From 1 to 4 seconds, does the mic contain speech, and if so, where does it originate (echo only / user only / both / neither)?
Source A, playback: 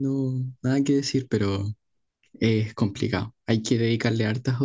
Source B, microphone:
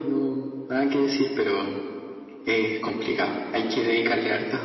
echo only